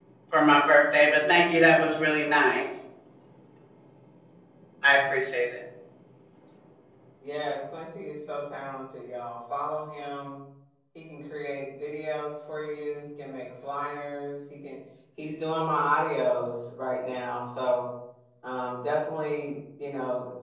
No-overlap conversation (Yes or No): Yes